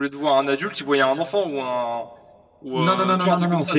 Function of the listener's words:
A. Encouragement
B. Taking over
B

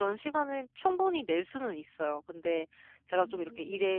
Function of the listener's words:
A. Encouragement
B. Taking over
A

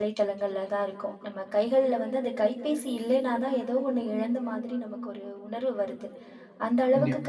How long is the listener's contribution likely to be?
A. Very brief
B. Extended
A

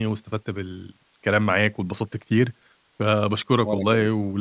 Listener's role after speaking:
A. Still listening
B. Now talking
A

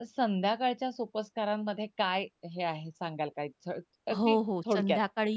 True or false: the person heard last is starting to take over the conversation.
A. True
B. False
A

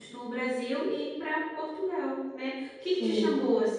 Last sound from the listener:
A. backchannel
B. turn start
A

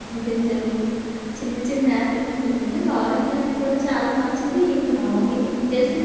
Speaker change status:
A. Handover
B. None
B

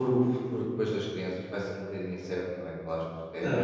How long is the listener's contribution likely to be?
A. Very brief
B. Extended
B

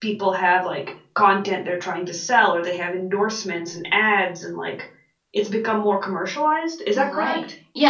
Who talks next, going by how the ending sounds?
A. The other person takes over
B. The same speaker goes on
A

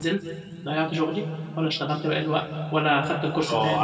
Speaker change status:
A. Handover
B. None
A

